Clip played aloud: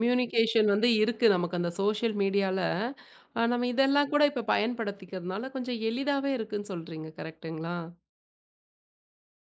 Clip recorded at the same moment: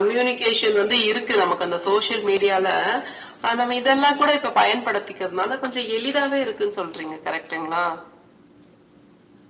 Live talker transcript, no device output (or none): none